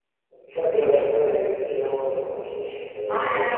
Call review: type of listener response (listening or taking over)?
taking over